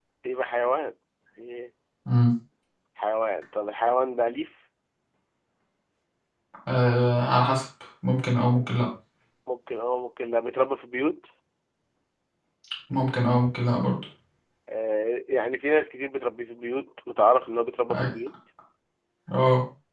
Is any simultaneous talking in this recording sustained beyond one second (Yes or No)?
No